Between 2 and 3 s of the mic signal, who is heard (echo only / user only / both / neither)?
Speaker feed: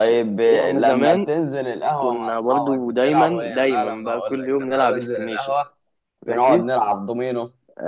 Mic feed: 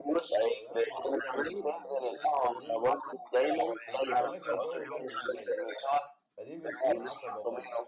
both